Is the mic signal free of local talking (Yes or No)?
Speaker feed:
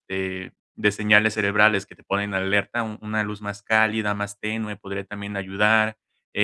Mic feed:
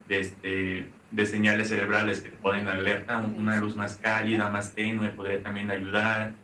No